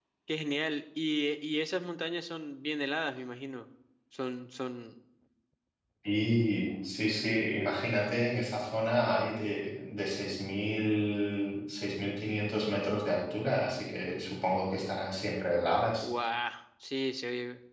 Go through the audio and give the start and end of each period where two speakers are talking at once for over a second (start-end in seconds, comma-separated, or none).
none